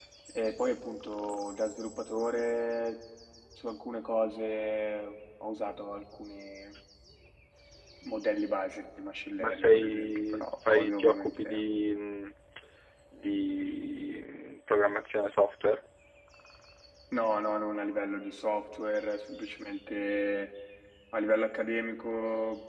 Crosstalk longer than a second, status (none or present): present